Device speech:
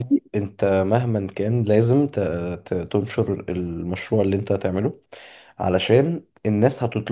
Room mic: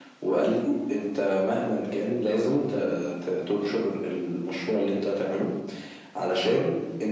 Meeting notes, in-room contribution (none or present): none